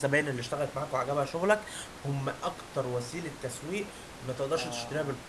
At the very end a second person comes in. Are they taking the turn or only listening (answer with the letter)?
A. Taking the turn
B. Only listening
A